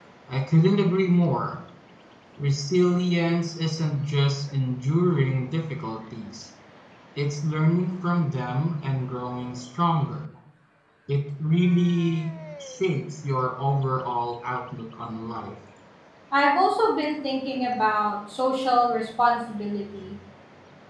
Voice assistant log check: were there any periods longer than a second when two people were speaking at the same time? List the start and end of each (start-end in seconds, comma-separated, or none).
none